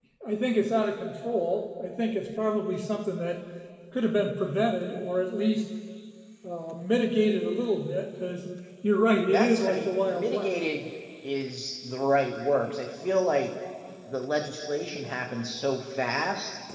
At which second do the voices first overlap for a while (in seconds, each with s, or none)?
9.3 s